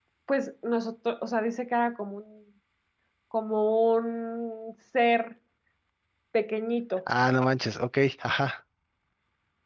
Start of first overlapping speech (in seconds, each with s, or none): none